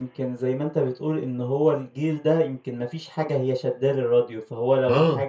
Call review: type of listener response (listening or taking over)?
listening